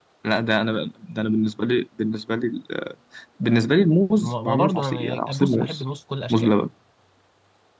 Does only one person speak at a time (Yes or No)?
No